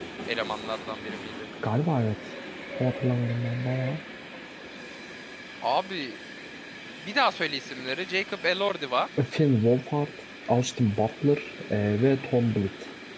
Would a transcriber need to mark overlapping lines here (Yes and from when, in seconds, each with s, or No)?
No